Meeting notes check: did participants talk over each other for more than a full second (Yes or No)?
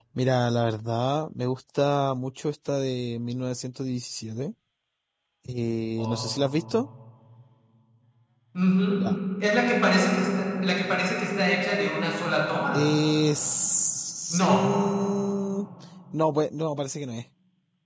No